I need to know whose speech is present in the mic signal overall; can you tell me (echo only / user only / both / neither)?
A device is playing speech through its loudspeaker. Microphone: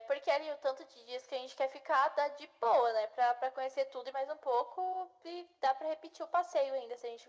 echo only